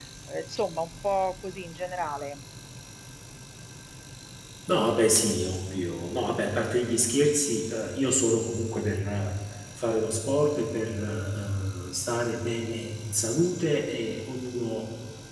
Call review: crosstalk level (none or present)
none